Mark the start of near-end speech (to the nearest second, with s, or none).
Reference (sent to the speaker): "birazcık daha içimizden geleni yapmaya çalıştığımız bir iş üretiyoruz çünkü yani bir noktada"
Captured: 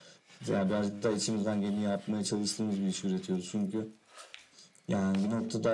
none